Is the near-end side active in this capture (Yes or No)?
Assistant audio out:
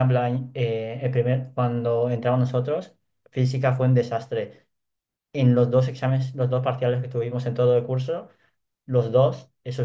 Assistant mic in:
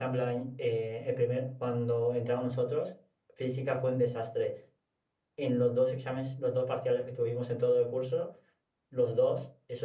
No